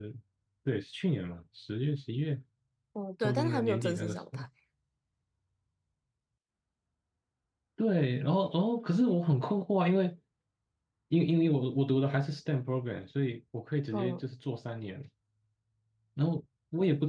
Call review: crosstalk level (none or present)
present